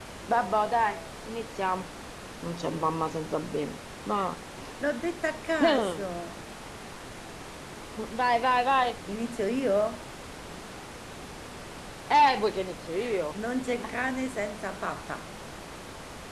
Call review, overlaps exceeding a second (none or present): none